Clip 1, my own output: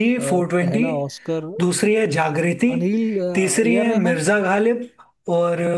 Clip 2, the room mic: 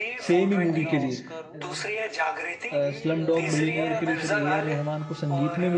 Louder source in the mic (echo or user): user